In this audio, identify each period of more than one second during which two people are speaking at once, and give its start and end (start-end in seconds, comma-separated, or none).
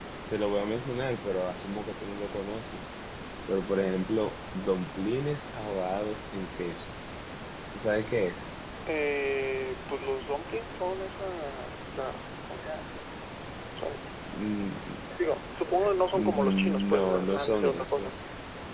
16.1-18.1